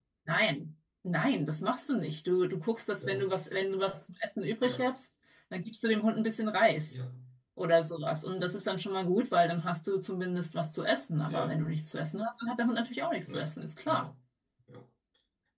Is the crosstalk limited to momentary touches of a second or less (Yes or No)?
Yes